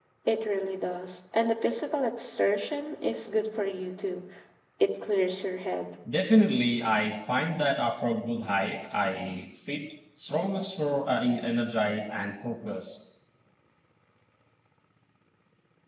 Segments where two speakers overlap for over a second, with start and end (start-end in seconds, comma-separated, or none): none